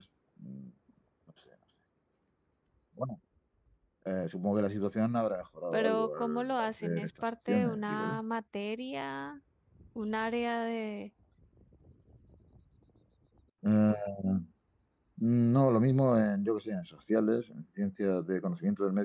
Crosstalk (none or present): present